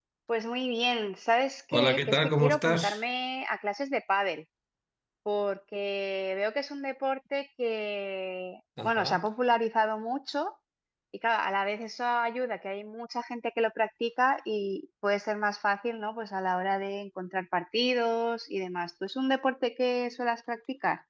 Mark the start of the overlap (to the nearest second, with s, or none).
2 s